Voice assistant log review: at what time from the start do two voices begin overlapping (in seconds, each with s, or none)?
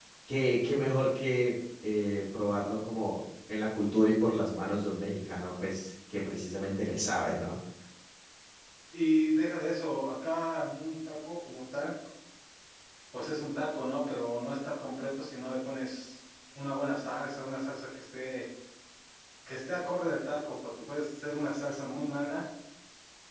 none